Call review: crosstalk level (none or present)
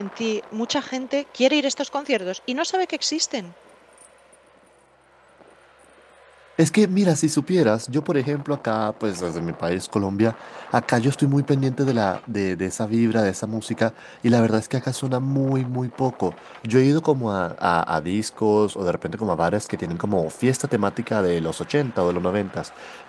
none